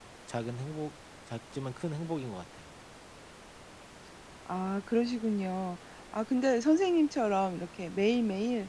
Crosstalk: none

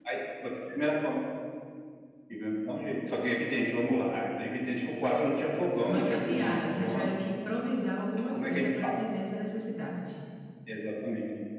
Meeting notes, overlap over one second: present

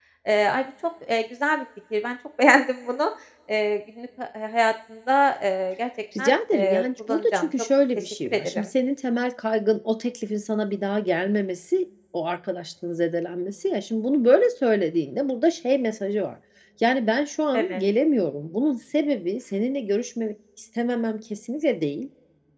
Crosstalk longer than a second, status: present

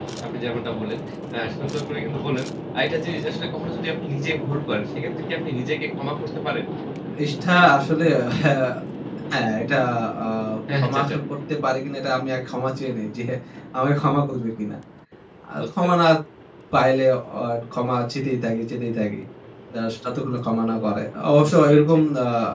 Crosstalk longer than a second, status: none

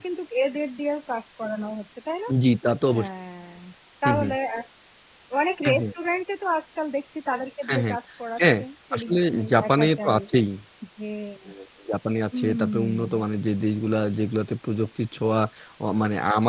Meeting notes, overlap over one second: present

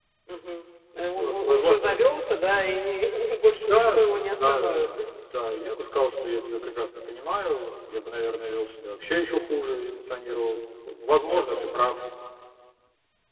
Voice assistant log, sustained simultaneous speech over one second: present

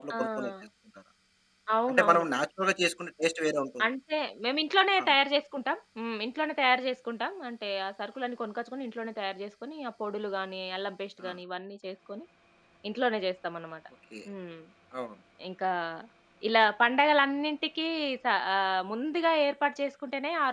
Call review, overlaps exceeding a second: none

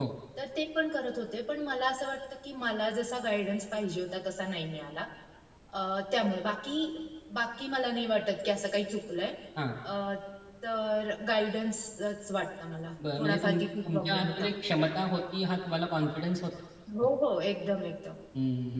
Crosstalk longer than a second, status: present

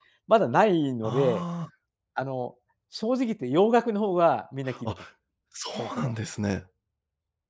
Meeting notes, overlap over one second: none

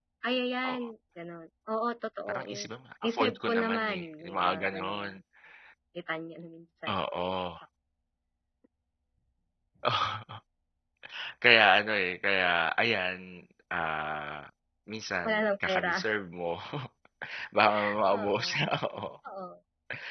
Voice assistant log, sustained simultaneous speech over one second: present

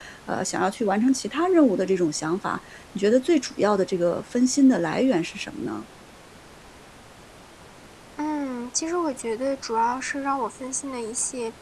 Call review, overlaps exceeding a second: none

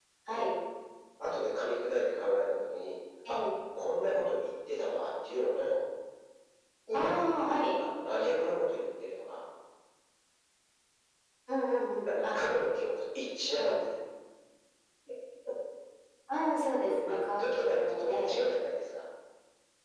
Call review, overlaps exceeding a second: present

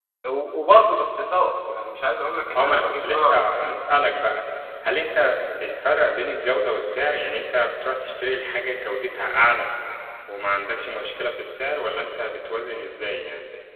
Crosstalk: present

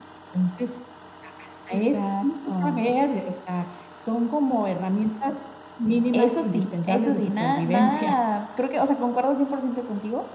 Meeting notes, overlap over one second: present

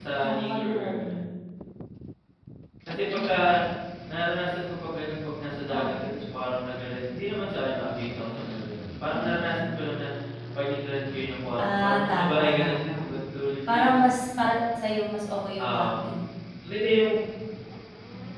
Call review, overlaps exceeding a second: present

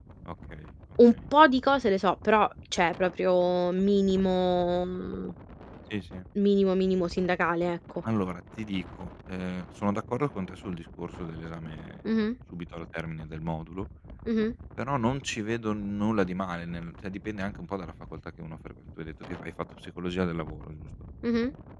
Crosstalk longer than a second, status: none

